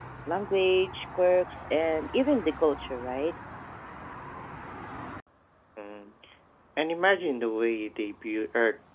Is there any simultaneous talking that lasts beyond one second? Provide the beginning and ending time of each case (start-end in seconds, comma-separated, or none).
none